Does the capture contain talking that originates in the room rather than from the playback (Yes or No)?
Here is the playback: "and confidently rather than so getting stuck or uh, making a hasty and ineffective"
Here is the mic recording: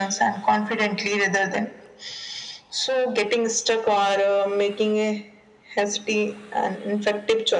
No